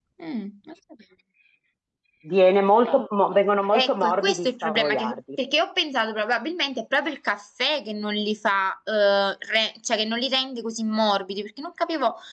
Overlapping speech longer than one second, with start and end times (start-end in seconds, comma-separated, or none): 3.8-5.2